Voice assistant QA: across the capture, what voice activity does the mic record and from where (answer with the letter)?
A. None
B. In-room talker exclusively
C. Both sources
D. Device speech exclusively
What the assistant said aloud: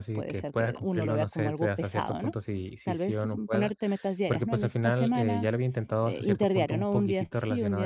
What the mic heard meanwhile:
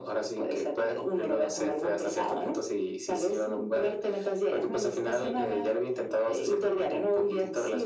D